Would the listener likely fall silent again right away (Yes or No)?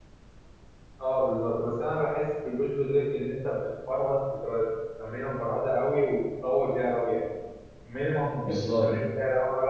Yes